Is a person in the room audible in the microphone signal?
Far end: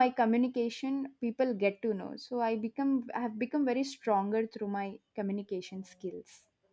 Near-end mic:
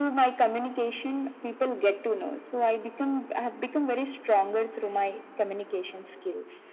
No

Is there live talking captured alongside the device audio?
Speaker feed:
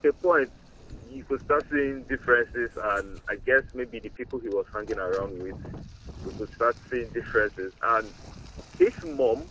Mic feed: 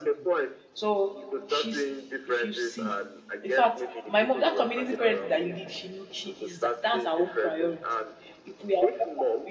Yes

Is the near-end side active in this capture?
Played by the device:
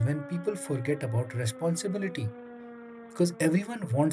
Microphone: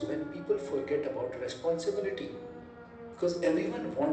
No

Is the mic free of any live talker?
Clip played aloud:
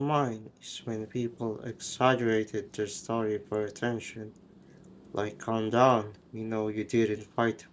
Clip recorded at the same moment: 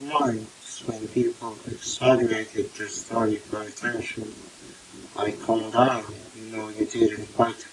Yes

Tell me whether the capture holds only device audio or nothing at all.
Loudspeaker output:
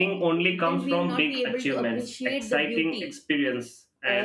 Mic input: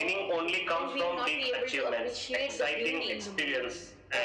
No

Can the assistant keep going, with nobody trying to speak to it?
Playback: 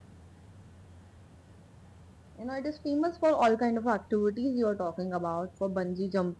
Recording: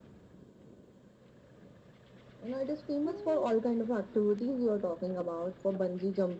No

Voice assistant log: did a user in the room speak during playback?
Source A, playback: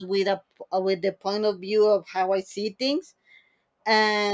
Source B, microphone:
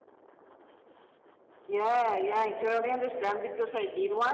Yes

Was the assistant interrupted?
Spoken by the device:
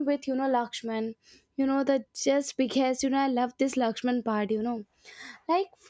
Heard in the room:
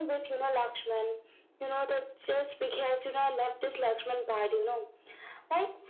No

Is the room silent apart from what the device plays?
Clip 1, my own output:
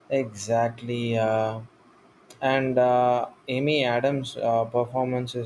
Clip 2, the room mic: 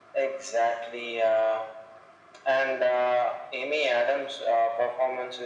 Yes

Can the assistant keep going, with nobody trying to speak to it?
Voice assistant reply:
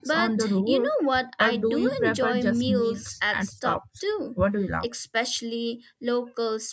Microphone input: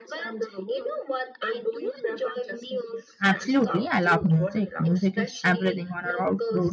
No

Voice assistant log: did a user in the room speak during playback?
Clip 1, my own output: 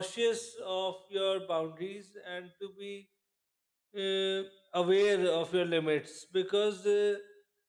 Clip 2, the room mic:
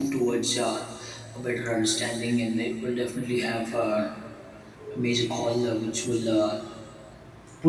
Yes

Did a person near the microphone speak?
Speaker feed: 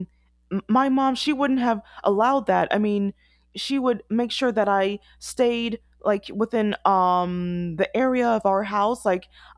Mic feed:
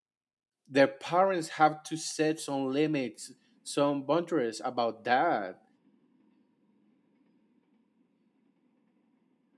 Yes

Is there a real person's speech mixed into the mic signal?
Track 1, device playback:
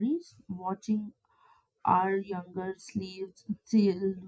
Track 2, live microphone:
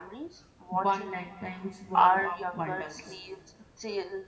Yes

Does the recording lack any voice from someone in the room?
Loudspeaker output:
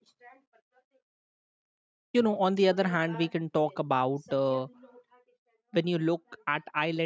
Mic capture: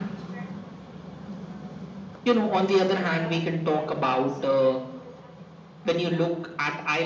Yes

